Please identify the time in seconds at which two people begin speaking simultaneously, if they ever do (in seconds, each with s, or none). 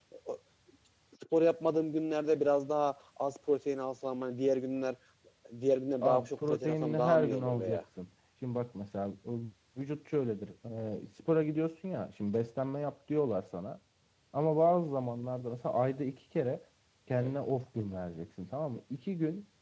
6.0 s